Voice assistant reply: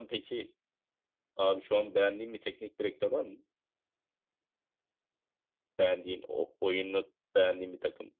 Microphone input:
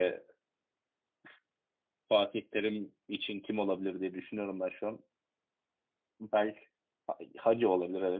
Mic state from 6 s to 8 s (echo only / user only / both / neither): user only